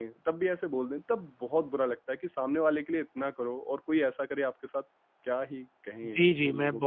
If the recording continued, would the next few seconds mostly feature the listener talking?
Yes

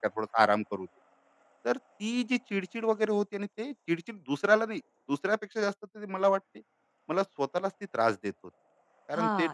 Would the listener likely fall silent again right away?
No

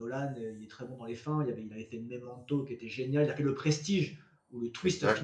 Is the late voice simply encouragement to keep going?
Yes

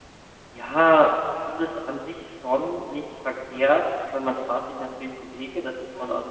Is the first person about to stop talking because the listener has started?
No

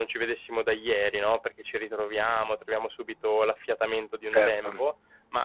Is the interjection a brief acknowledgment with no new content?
Yes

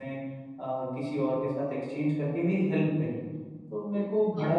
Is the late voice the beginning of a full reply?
No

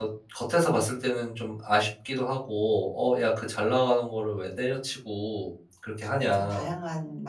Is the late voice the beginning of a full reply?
Yes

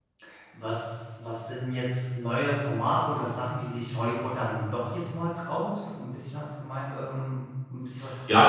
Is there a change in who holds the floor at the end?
Yes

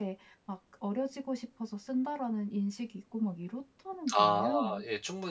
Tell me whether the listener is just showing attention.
No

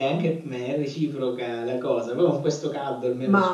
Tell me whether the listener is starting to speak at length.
Yes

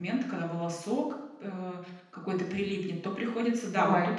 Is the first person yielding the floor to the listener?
No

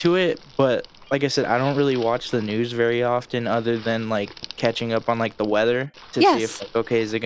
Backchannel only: Yes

